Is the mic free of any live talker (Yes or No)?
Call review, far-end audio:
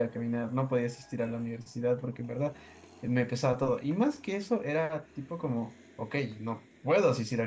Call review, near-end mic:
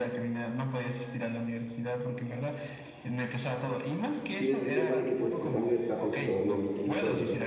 No